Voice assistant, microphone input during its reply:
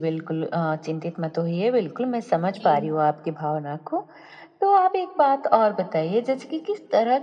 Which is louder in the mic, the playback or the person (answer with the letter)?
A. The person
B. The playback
B